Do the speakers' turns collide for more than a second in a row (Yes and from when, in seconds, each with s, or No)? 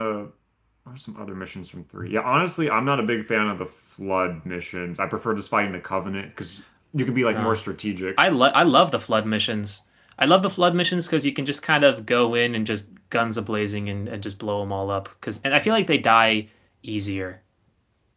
No